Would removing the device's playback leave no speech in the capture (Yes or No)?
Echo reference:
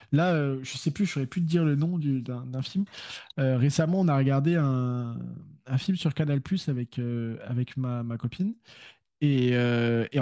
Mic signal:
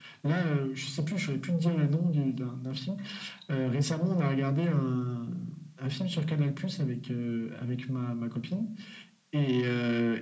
Yes